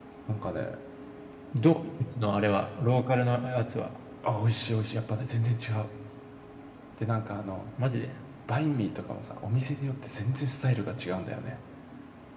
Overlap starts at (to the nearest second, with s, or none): none